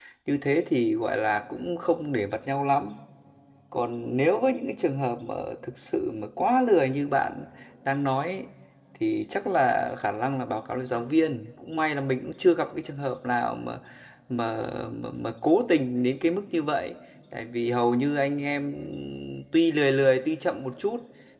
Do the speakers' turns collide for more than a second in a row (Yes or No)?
No